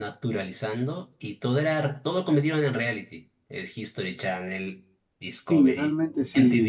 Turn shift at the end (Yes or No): Yes